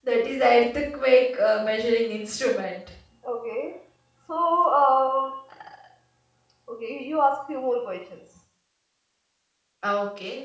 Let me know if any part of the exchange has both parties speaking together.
No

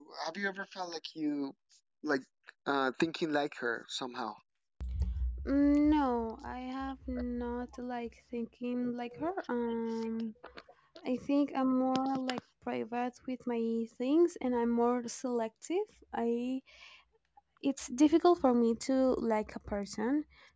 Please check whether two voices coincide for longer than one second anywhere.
No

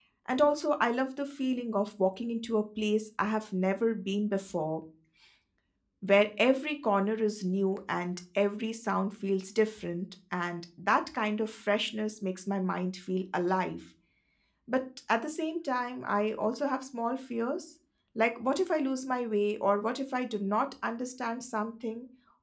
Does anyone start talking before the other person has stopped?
No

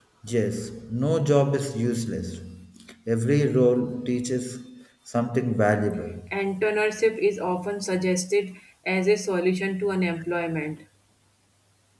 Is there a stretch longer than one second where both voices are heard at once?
No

